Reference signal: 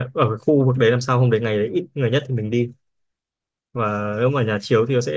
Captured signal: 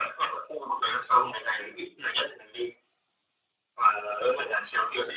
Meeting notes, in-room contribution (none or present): none